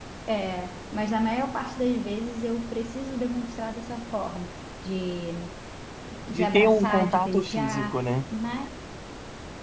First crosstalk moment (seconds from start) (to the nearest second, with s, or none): 6 s